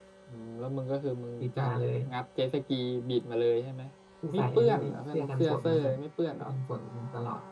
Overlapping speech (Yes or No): Yes